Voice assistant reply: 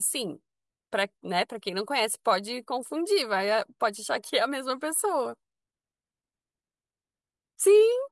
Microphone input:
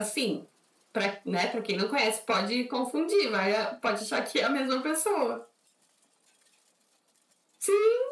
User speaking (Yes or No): No